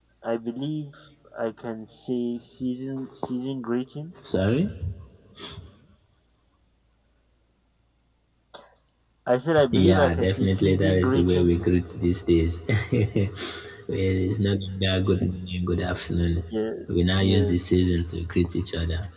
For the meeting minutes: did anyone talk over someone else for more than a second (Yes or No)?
Yes